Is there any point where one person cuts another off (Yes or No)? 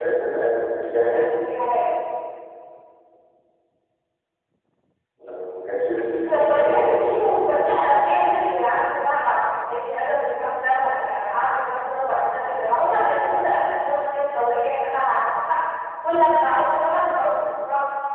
Yes